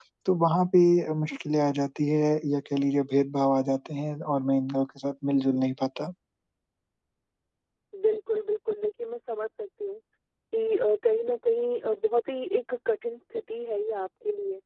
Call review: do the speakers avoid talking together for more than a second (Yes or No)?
Yes